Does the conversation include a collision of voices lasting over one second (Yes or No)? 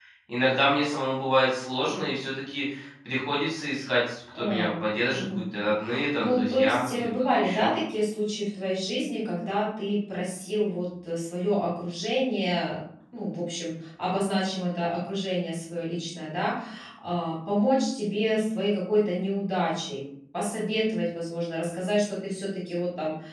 Yes